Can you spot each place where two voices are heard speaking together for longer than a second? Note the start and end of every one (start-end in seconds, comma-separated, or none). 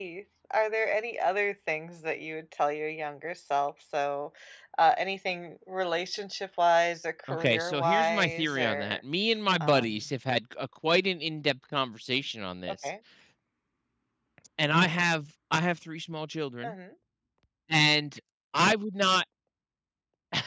7.3-9.0